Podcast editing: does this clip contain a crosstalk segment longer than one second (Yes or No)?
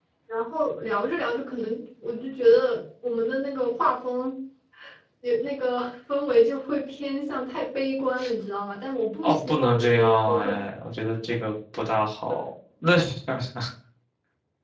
Yes